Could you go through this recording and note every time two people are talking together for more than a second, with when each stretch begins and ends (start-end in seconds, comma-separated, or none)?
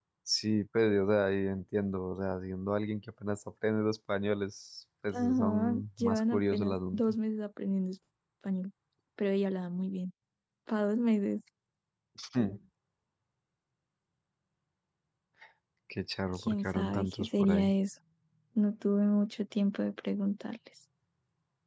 5.1-7.1, 16.3-17.7